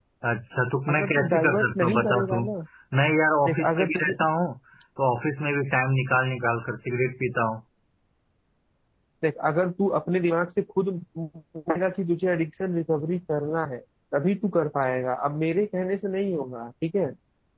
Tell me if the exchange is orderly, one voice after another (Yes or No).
No